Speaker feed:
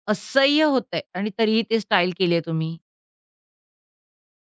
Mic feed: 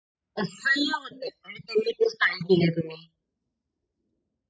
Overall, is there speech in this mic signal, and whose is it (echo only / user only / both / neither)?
echo only